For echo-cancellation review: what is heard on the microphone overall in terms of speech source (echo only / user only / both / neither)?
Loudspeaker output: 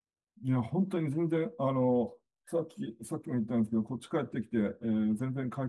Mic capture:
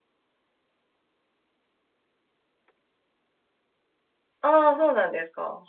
user only